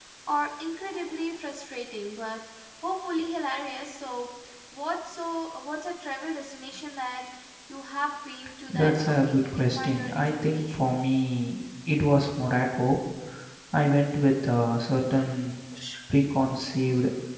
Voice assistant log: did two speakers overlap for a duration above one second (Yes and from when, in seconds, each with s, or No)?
Yes, from 8.7 s